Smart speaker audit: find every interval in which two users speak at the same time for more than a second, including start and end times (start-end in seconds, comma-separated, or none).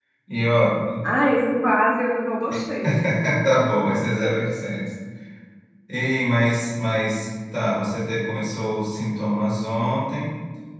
none